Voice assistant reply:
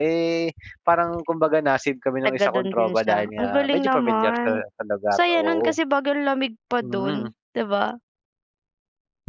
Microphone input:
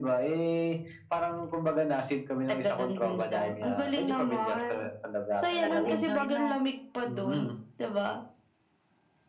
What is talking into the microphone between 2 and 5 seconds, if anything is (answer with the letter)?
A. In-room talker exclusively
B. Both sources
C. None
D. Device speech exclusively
D